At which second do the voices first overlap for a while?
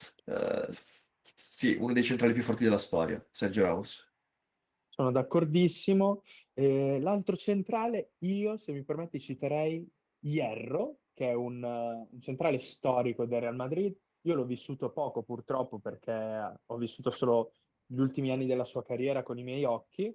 none

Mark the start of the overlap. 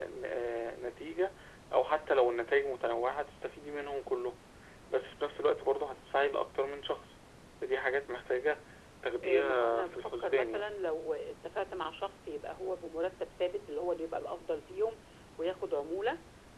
9.2 s

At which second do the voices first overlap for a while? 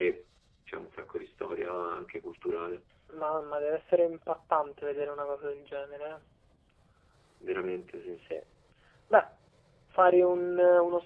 none

